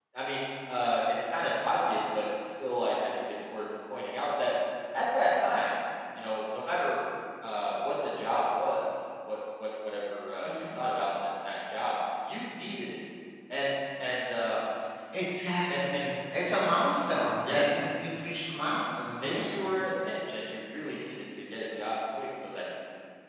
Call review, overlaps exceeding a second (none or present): none